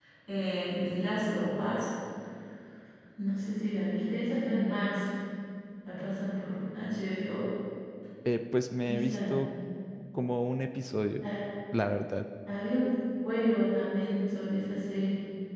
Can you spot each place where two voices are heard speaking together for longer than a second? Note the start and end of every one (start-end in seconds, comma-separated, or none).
none